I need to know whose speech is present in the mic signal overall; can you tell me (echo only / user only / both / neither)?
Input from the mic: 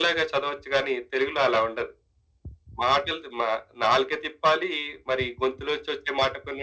echo only